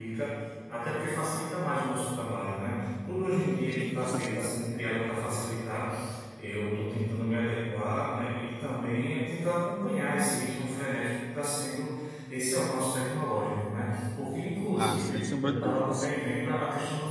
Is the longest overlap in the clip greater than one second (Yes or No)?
Yes